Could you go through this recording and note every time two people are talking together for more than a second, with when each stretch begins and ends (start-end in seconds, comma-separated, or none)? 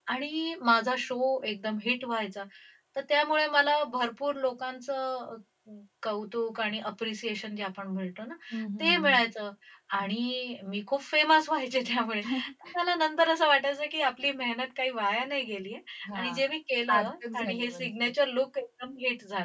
16.9-18.1